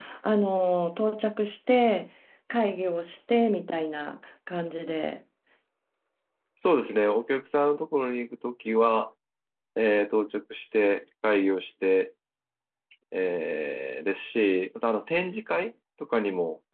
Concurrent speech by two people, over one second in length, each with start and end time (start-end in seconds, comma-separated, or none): none